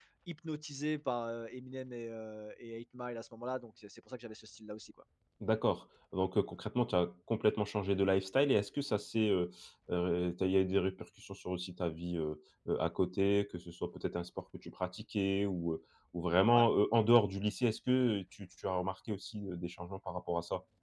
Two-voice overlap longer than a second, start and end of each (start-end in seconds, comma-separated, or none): none